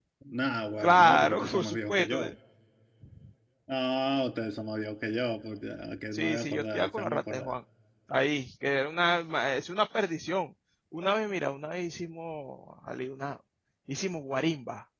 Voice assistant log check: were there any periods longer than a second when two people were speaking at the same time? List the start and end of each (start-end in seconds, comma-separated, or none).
0.8-2.2, 6.1-7.5